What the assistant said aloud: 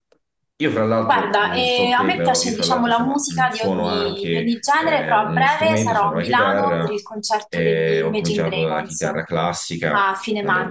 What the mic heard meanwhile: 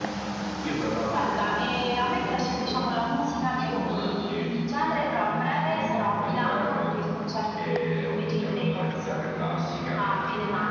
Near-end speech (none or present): none